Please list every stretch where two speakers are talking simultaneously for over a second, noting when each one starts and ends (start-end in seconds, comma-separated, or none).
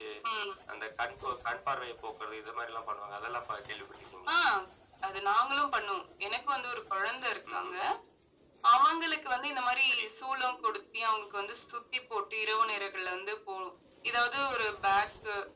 none